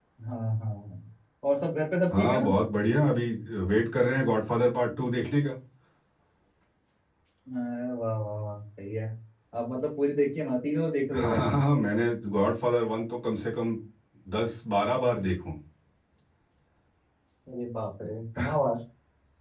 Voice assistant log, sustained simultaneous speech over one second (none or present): none